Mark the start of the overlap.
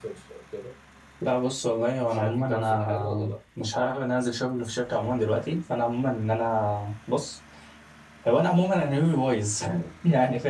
2 s

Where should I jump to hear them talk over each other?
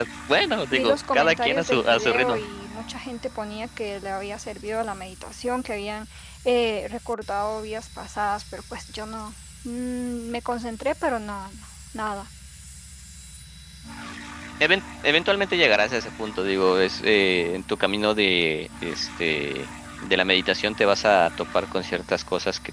1 s

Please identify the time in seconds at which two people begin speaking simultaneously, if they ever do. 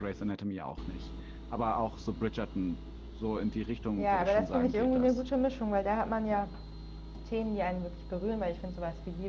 4 s

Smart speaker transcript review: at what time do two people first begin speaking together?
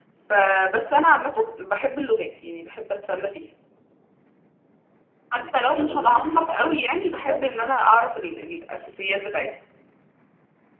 5 s

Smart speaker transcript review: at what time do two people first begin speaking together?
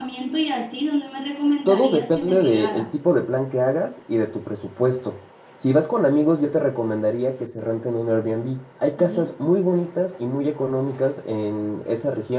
2 s

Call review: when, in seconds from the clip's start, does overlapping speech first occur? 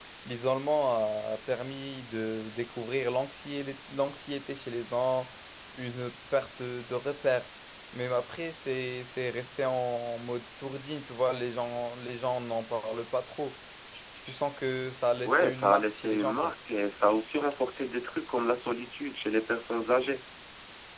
15 s

